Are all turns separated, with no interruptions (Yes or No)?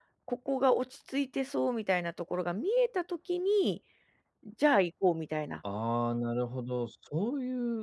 Yes